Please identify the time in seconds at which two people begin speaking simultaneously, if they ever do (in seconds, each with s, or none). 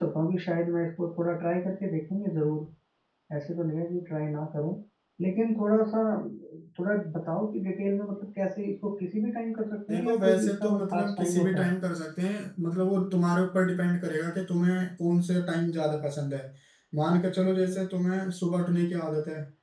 9.9 s